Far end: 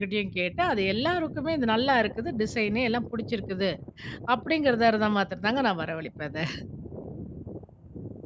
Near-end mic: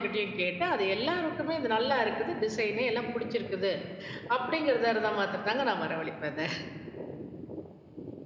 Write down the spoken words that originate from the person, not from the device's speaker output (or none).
none